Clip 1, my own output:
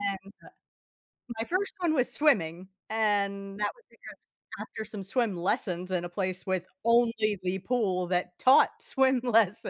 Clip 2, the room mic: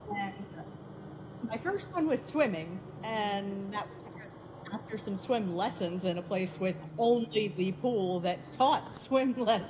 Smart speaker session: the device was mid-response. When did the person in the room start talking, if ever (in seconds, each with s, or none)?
none